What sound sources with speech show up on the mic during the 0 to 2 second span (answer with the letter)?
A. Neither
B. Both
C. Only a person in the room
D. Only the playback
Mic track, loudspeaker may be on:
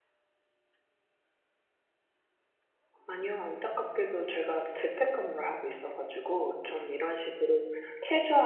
A